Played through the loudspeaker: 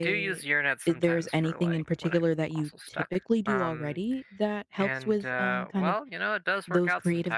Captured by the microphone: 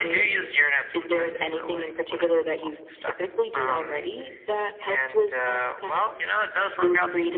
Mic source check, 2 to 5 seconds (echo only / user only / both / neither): echo only